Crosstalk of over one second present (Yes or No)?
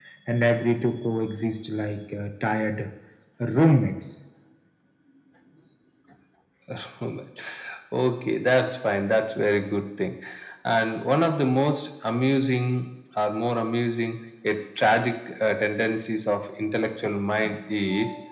No